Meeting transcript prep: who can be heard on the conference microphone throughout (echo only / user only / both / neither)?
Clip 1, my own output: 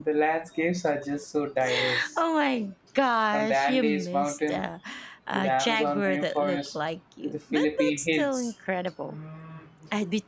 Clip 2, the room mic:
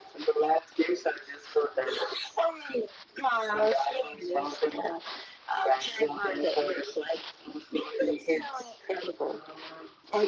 echo only